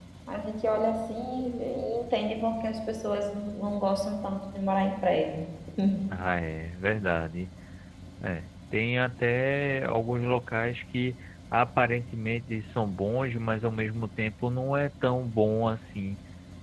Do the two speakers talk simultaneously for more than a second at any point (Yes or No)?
No